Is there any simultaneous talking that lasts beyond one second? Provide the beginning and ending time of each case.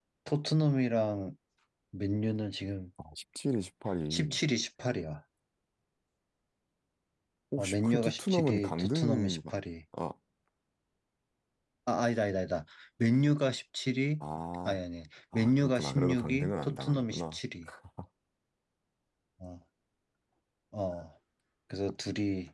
7.6-9.4, 15.3-17.4

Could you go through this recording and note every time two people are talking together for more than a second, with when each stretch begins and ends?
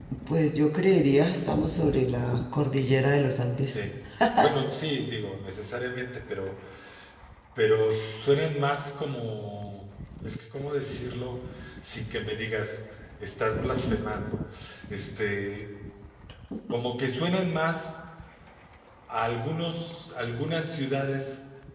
none

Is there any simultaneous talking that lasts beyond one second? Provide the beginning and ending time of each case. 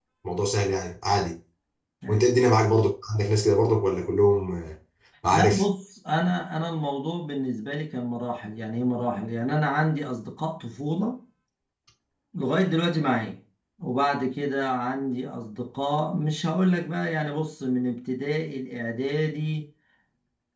none

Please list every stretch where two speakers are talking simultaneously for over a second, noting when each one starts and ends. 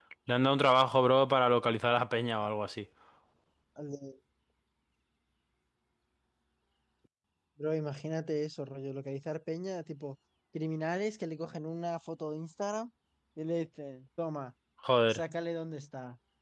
none

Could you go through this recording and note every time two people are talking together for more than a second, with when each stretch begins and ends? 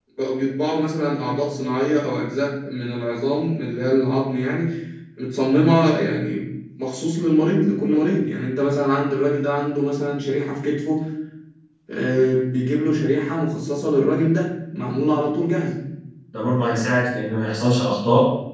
none

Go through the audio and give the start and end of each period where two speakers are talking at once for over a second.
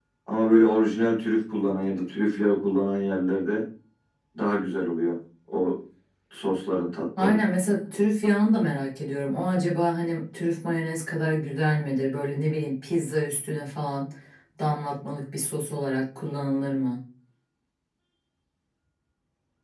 none

